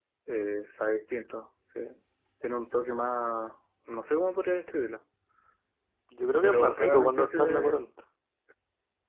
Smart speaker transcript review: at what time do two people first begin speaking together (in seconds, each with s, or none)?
6.4 s